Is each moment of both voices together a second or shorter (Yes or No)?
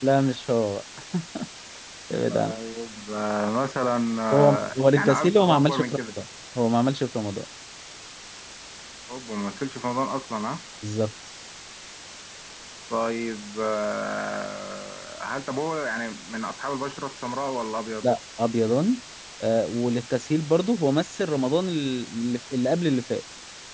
No